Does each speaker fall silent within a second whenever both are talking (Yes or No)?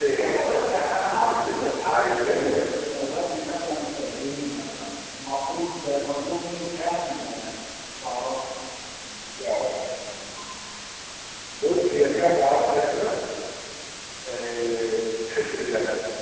No